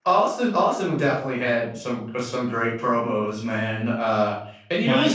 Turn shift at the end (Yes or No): No